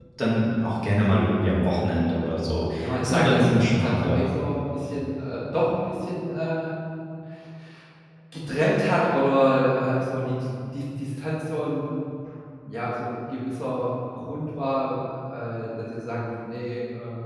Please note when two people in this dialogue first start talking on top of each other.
2.8 s

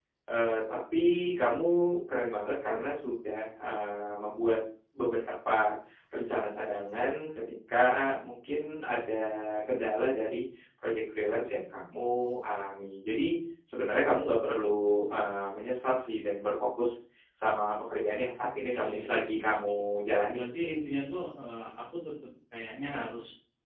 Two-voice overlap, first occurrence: 18.3 s

